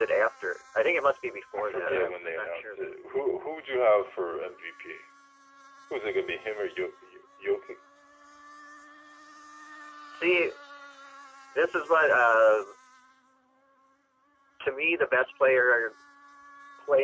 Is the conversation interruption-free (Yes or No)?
No